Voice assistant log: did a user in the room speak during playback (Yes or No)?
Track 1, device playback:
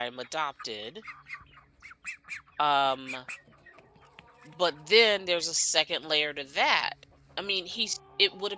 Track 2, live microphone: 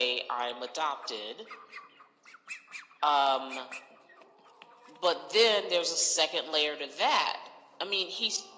No